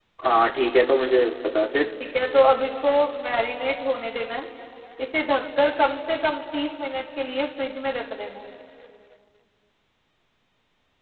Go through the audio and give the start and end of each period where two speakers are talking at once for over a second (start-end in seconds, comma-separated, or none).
none